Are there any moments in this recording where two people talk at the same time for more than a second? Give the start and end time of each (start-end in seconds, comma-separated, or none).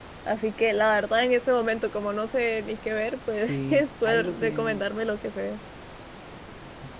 3.3-4.8